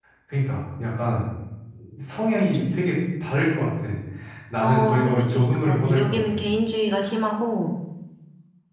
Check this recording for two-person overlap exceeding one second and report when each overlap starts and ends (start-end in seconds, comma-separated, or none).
4.6-6.4